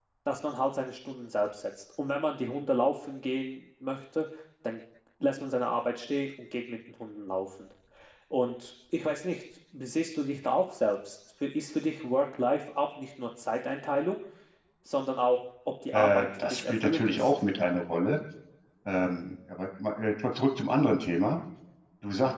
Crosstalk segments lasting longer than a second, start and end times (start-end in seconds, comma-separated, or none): 15.9-17.3